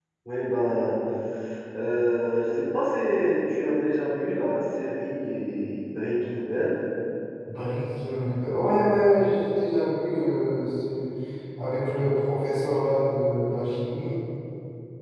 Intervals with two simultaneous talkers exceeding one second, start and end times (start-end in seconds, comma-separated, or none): none